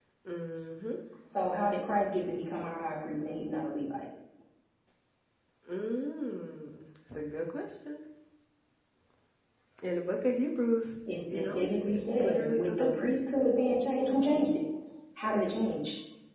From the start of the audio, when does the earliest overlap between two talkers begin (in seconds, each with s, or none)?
11.3 s